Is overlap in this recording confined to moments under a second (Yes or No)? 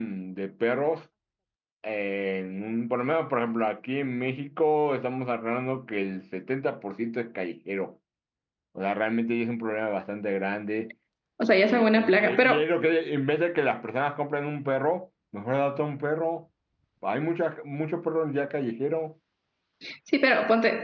No